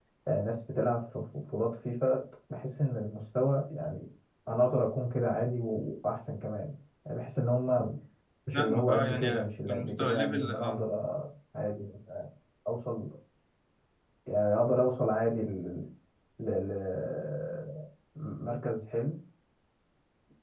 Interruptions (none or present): present